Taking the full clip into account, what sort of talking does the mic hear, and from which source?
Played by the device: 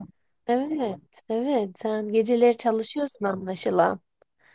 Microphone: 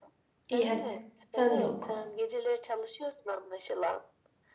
both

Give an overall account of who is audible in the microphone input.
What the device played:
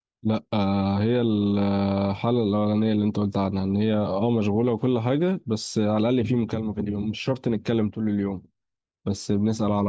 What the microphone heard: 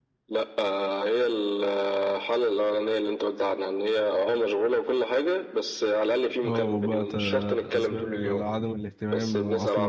both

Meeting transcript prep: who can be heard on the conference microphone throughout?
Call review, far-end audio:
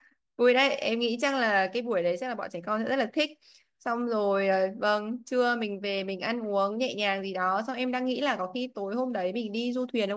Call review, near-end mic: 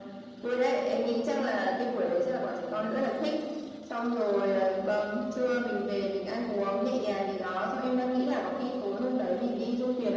echo only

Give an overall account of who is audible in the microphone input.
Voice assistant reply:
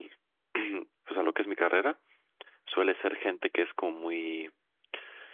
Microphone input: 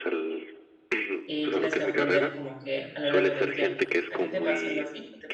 both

